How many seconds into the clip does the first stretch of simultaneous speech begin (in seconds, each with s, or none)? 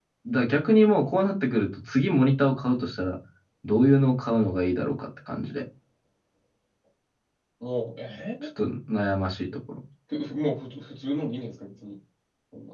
none